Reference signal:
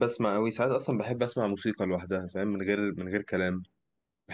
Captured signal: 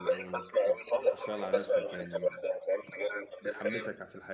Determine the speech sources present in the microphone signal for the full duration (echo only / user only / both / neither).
both